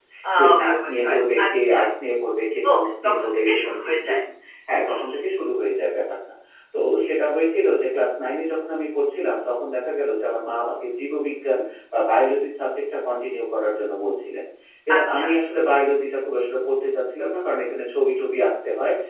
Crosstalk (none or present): present